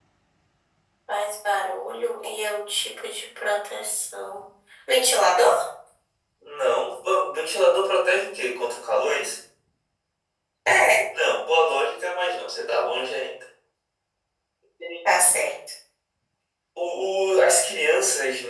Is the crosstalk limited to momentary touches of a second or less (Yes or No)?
Yes